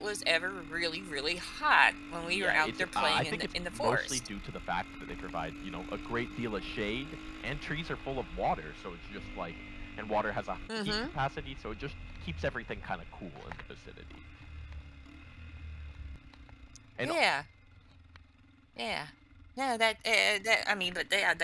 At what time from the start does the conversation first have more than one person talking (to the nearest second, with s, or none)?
2 s